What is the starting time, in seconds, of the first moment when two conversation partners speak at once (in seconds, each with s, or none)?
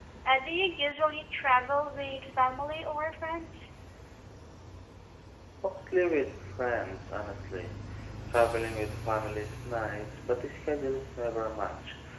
none